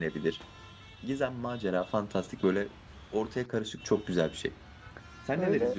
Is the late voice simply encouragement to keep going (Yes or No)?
No